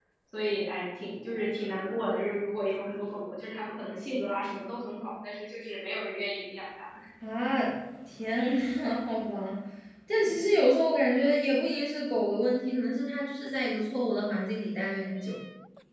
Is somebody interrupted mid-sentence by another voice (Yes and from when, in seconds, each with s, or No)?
No